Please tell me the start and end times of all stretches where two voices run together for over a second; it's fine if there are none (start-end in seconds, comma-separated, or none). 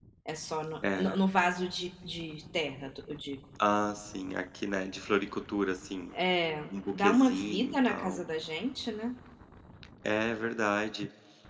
6.7-8.2